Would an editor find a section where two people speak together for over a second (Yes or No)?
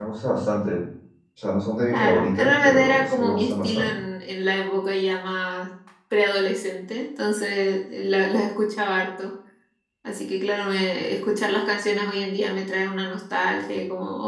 Yes